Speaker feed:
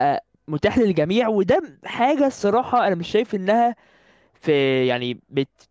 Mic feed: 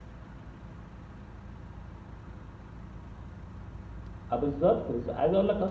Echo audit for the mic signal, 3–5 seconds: user only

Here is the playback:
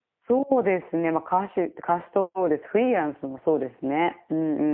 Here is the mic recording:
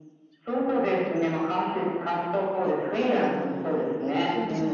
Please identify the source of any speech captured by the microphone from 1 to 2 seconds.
echo only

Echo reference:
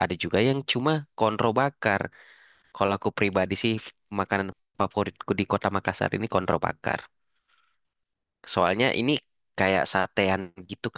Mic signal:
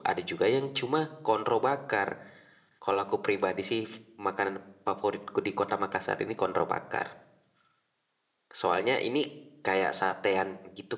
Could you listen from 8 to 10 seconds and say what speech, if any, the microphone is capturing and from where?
echo only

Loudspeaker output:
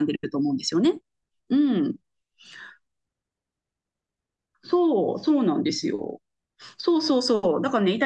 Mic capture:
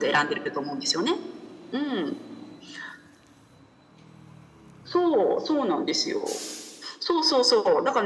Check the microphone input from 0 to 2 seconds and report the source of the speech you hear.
echo only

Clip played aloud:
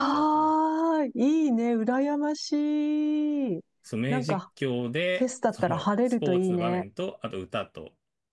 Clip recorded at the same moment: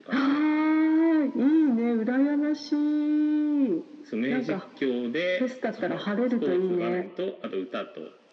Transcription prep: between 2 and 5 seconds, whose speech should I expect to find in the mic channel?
echo only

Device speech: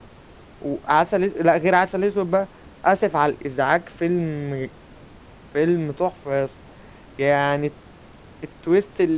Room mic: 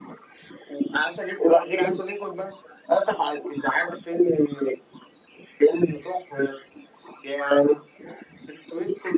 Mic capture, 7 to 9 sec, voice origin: echo only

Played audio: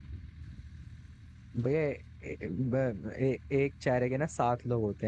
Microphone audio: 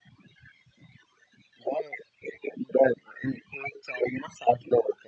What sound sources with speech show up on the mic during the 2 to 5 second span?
echo only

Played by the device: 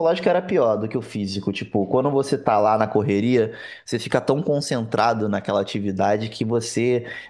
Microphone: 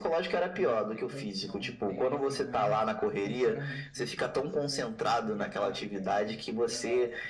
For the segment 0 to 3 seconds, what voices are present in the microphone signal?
both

